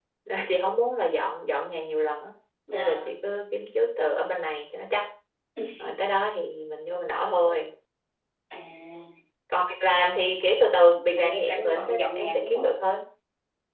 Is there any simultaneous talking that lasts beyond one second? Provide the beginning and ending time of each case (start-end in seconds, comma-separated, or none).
11.1-12.9